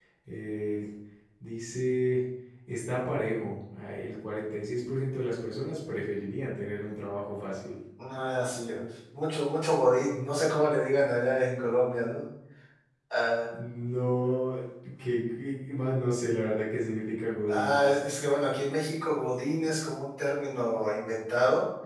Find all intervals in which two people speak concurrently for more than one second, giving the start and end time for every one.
none

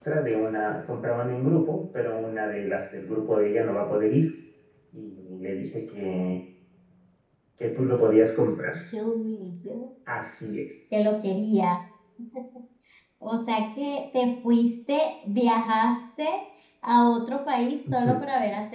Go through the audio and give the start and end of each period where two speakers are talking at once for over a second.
none

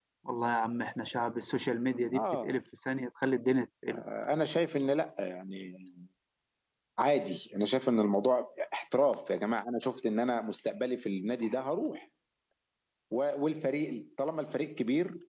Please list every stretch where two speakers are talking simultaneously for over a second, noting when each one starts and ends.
none

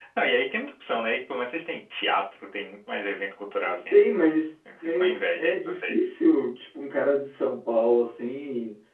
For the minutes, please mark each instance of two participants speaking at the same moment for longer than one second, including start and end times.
4.8-6.1

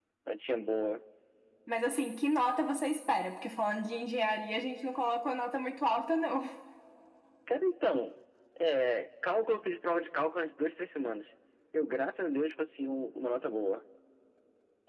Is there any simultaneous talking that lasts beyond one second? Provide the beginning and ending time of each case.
none

